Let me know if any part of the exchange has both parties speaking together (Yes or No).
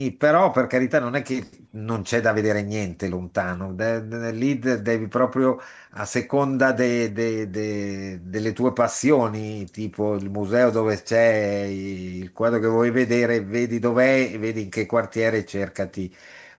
No